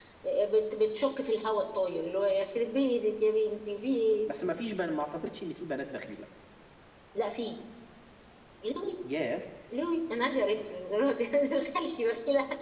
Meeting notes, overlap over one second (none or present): none